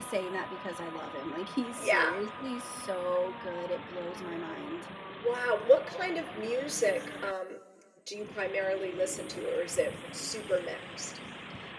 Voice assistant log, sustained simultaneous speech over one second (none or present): none